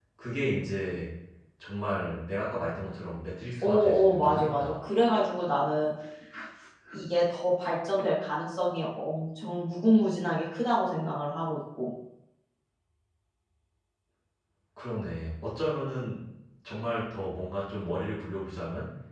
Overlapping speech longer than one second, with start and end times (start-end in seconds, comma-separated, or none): 3.6-4.9